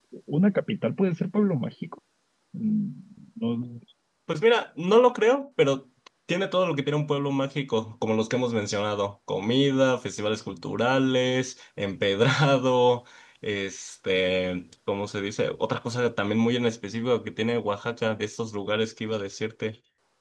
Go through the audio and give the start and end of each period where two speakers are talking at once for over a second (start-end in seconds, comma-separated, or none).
none